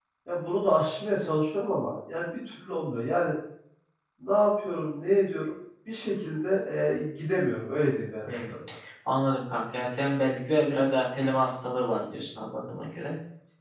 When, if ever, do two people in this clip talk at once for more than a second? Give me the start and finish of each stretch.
none

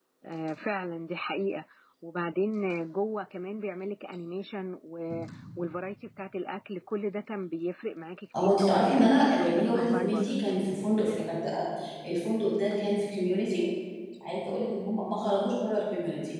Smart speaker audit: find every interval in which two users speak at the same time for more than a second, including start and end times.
8.4-10.3

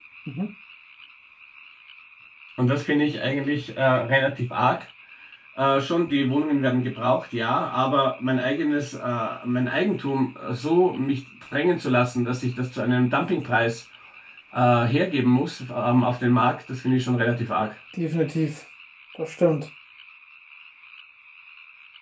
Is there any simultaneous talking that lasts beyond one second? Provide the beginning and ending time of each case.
none

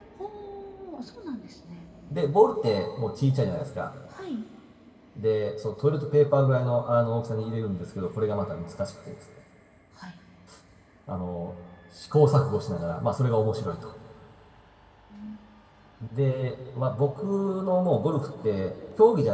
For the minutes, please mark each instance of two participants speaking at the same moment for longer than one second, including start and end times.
none

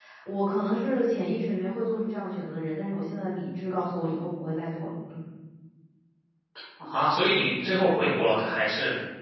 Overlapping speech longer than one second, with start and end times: none

